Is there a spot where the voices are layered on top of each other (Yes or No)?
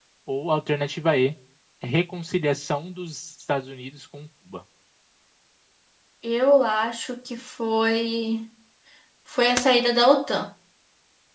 No